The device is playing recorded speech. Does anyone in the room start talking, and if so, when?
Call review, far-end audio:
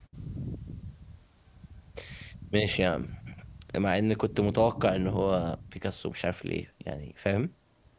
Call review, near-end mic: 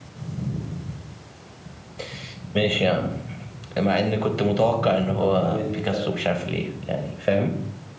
5.2 s

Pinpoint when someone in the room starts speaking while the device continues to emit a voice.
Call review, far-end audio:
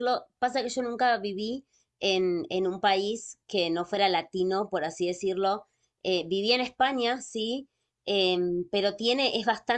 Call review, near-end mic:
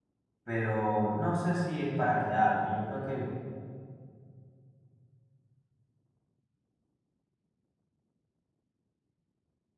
0.4 s

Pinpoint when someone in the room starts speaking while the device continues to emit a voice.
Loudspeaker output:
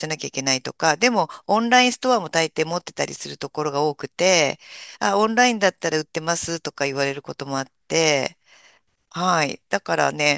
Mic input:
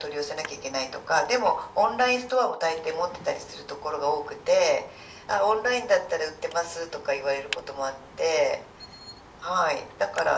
none

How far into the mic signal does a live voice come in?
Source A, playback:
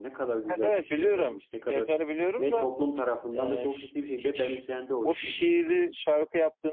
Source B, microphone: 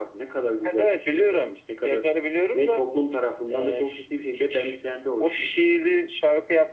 none

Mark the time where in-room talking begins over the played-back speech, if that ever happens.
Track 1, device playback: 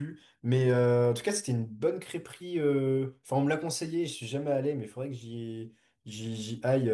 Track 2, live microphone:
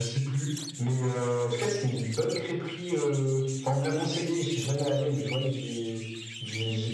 none

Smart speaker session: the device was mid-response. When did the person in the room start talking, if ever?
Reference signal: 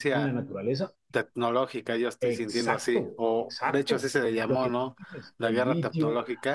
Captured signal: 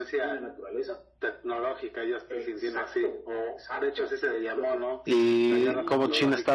5.0 s

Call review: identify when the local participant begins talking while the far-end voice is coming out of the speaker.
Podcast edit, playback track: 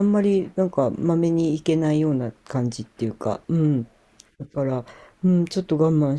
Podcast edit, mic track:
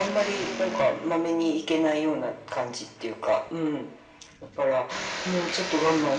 none

